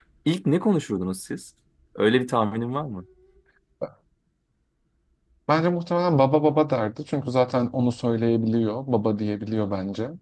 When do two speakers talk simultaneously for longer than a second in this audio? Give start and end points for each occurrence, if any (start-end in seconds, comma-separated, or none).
none